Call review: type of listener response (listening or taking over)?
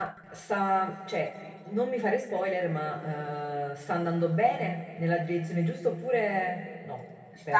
taking over